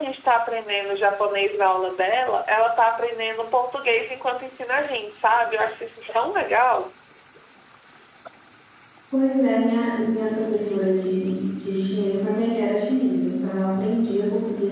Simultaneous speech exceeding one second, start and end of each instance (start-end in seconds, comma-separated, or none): none